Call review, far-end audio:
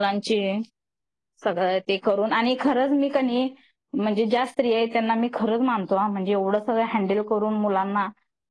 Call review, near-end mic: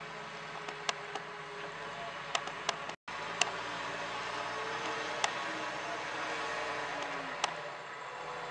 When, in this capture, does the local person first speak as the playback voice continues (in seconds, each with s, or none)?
none